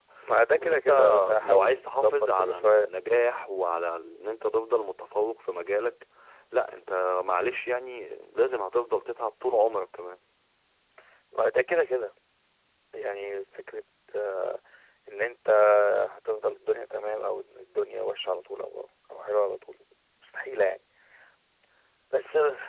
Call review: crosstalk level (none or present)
present